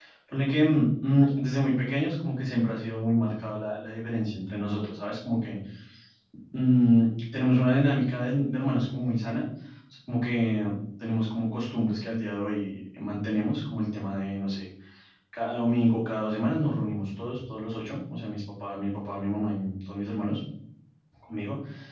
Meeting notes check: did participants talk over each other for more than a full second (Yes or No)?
No